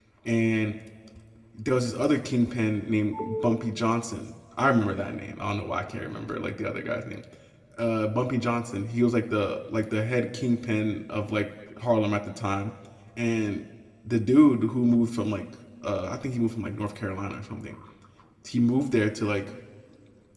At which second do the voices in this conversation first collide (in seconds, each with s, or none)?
none